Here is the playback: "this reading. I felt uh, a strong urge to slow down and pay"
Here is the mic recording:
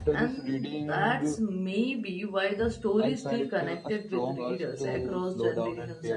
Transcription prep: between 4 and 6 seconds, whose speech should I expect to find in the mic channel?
both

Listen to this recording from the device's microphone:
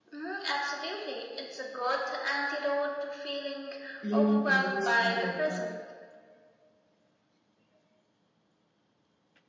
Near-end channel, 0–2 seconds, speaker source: echo only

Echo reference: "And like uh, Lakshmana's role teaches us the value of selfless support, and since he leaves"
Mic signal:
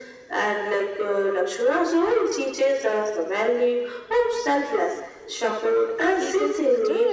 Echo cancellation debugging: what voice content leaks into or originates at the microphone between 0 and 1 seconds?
echo only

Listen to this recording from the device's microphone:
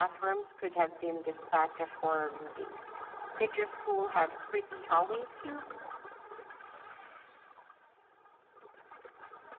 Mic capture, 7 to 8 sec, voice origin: neither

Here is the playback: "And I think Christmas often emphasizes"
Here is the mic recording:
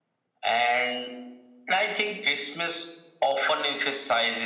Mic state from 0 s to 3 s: echo only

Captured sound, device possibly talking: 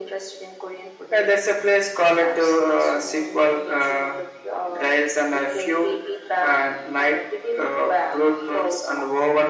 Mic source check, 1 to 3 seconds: echo only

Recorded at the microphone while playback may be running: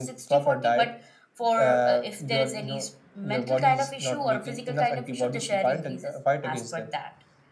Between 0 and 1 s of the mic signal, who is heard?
echo only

